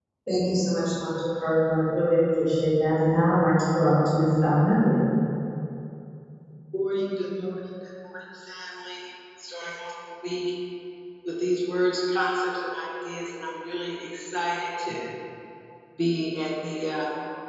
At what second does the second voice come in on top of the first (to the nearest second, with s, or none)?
none